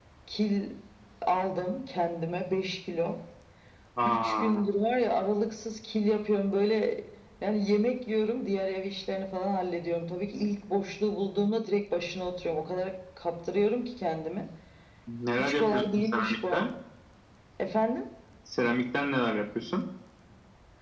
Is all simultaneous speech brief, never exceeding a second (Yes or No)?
No